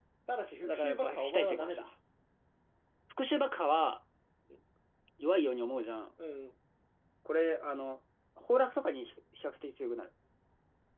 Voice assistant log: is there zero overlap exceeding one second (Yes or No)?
No